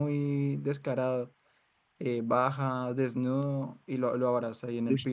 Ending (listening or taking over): listening